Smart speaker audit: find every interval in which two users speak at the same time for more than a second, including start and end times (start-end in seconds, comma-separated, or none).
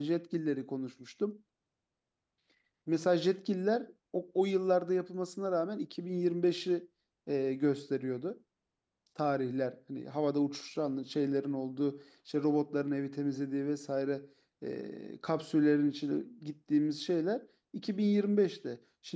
none